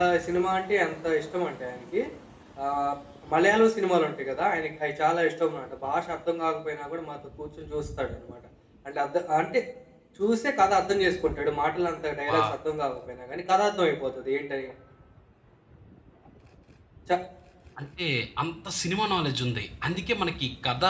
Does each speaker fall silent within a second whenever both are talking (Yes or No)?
Yes